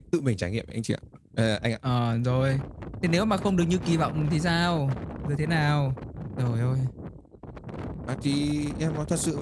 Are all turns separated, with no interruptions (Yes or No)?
Yes